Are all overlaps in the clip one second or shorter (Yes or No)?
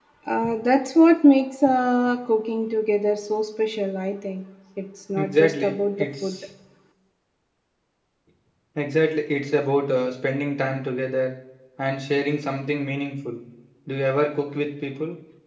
No